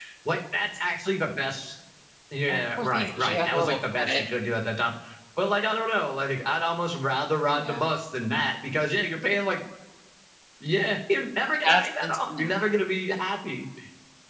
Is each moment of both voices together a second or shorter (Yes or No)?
No